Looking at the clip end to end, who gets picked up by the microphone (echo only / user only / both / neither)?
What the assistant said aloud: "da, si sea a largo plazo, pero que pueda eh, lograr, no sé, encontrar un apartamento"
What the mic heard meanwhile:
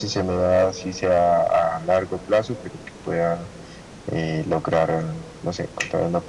echo only